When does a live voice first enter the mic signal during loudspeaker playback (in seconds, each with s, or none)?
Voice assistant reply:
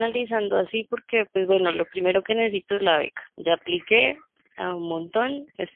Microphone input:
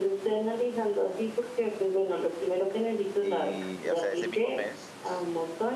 3.2 s